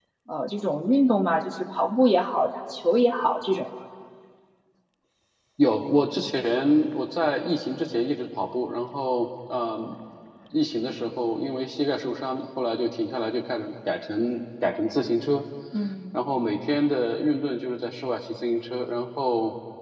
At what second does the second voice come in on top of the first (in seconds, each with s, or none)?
none